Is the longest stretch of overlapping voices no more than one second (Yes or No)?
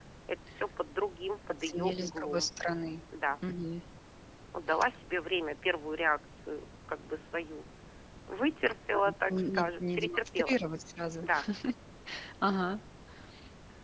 No